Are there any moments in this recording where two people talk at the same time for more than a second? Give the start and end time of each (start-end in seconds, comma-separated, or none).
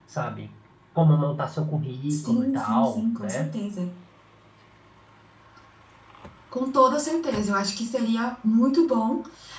2.1-3.5